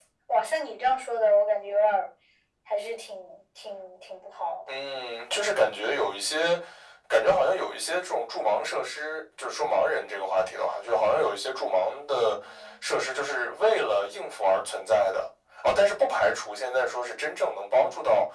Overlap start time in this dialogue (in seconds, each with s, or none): none